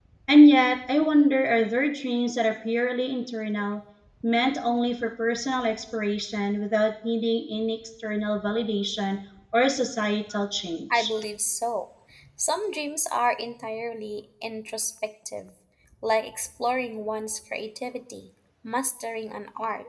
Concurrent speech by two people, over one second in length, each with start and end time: none

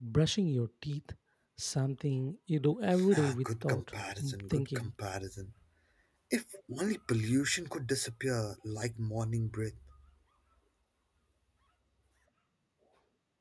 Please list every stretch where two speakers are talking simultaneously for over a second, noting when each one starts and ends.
3.1-4.9

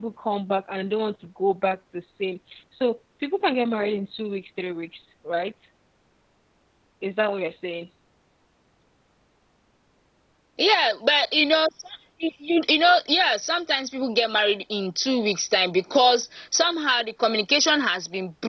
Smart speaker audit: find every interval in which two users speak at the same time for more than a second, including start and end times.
none

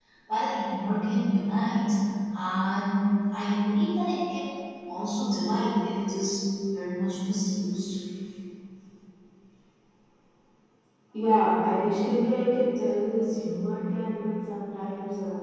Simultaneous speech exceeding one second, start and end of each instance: none

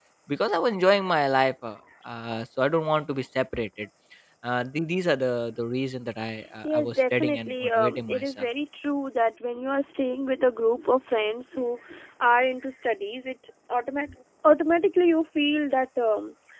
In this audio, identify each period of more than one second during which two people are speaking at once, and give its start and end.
6.6-8.4

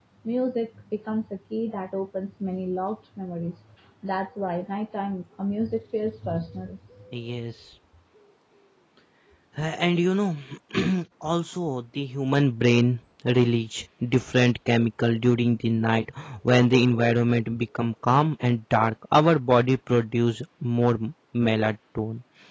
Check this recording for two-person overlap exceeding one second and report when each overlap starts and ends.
none

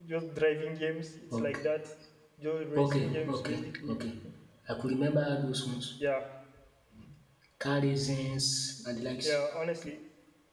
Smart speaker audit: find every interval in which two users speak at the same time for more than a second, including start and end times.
2.8-4.0

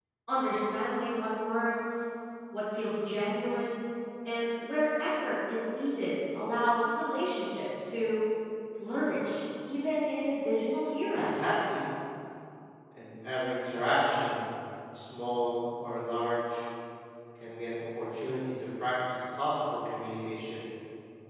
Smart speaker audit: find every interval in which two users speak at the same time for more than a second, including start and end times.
none

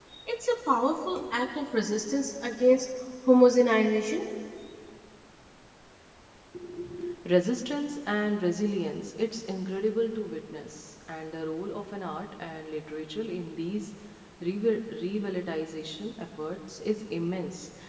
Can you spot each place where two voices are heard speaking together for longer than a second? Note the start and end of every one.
none

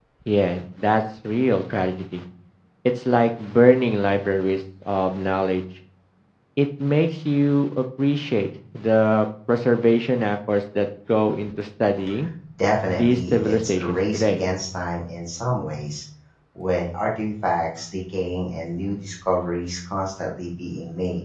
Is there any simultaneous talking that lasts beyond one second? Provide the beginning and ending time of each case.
12.9-14.4

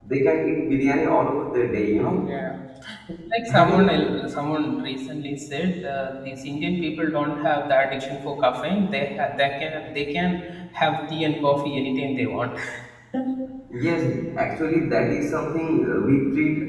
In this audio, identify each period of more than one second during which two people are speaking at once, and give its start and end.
none

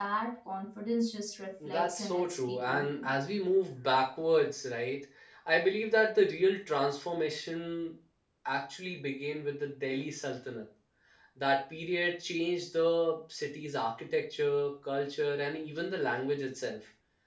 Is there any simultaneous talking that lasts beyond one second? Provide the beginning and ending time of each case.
1.6-3.1

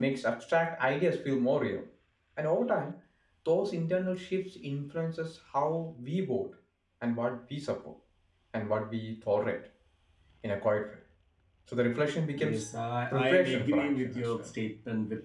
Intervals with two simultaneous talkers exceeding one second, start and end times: 13.1-14.5

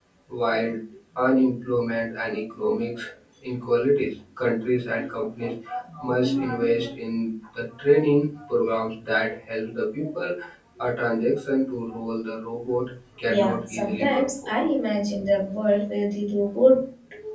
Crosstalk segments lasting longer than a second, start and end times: 13.3-14.6

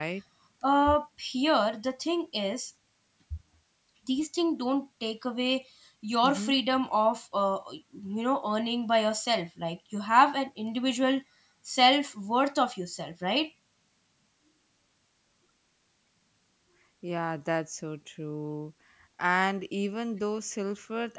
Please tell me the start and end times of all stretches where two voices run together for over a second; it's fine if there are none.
none

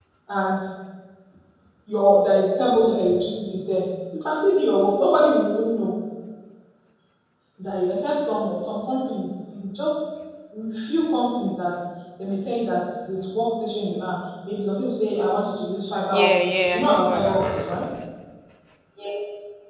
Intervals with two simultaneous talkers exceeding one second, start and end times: 16.1-17.8

